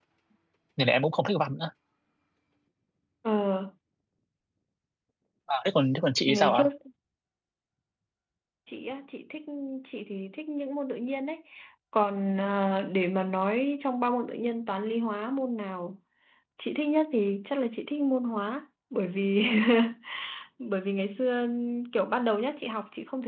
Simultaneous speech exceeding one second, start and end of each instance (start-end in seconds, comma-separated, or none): none